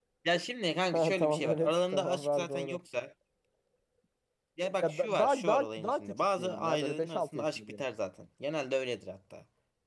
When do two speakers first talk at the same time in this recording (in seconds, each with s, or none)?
0.9 s